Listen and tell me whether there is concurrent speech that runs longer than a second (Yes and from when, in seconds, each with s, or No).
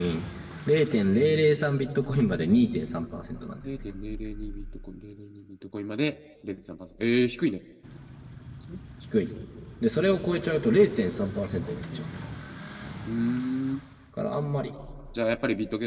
No